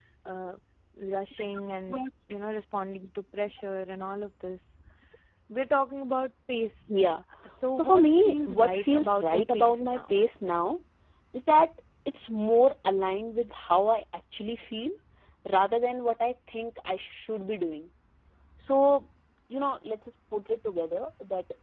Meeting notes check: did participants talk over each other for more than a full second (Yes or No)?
Yes